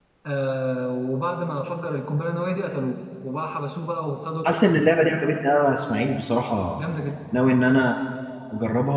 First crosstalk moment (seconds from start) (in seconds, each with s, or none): none